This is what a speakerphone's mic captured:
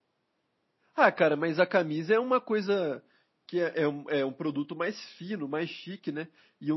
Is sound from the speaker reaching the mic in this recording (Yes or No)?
No